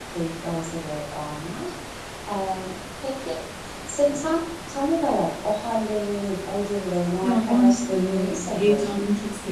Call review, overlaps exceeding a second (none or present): present